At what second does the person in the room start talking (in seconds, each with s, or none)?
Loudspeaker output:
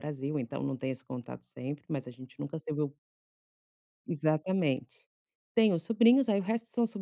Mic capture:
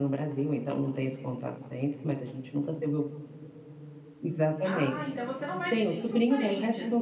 4.3 s